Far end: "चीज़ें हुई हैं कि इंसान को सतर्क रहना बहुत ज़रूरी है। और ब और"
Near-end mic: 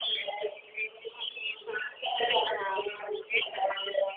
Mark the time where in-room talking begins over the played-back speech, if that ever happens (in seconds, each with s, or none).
2.2 s